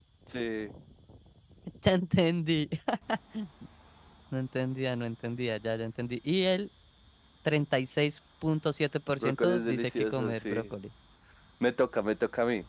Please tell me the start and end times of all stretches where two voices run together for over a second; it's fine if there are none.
9.2-10.6

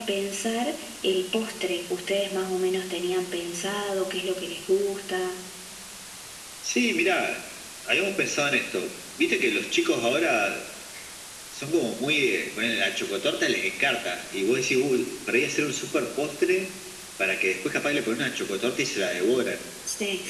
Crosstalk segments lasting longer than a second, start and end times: none

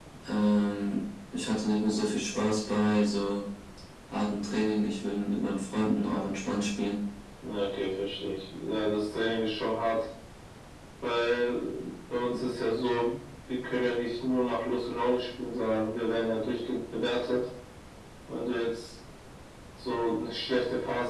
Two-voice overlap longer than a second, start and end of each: none

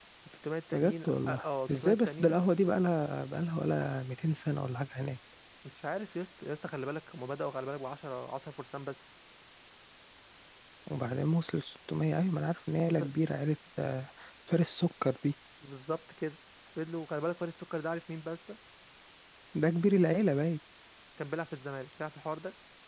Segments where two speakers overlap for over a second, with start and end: 0.7-2.4

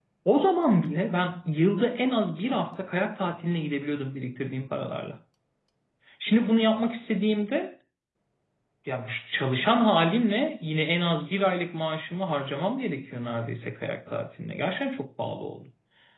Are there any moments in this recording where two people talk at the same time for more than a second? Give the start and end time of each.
none

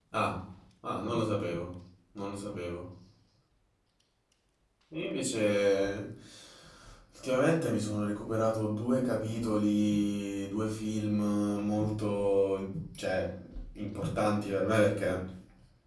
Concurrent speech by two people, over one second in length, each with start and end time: none

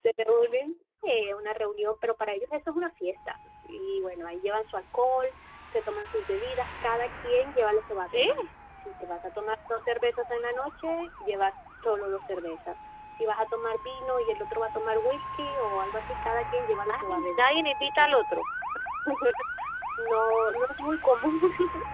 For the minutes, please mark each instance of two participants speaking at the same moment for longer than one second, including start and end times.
16.9-18.2

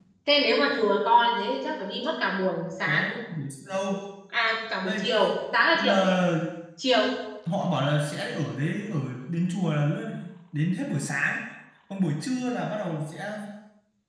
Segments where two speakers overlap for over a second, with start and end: none

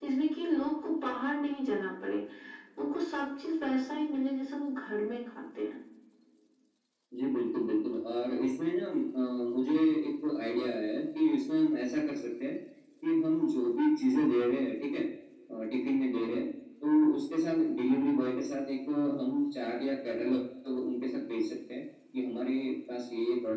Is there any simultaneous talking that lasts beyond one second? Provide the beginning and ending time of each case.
none

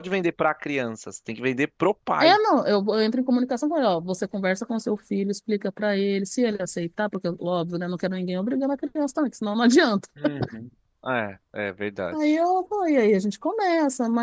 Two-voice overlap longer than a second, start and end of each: none

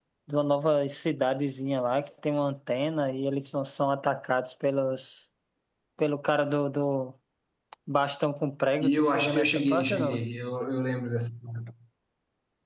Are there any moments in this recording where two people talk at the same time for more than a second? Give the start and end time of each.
8.8-10.2

